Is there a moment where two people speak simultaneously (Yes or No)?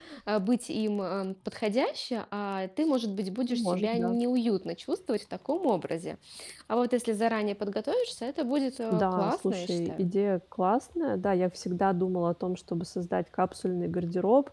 Yes